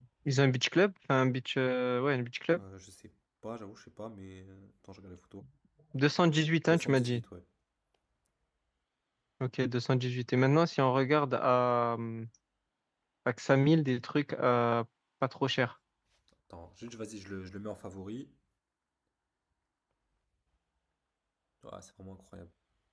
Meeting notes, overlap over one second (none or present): none